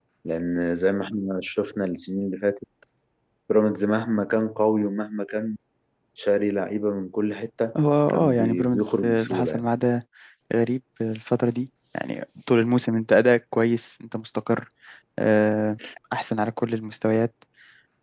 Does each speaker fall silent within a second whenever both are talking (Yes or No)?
No